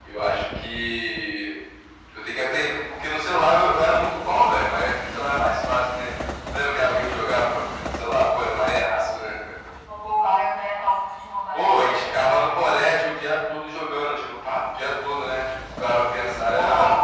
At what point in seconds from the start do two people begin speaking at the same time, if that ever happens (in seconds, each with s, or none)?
11.5 s